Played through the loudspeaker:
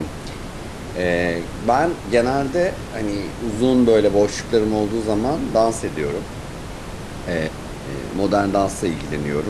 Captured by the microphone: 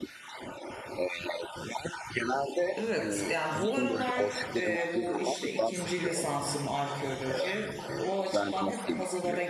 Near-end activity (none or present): present